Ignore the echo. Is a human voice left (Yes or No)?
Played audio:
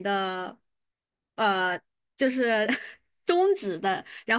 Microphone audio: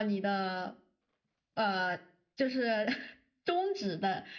No